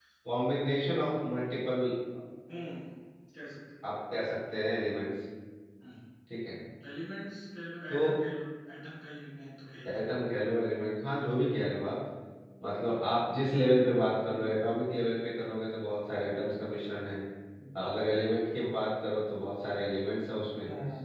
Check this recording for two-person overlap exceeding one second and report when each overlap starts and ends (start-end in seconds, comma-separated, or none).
none